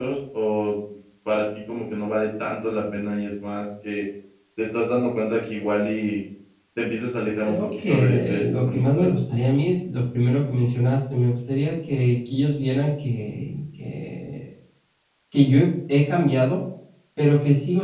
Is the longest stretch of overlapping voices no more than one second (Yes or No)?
No